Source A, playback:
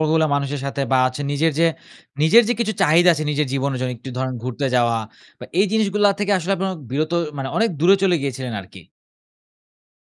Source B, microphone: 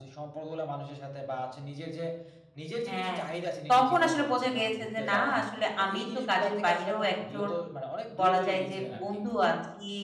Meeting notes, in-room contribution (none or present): present